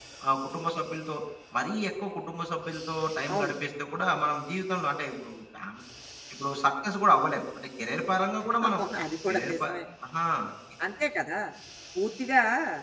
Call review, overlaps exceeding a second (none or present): none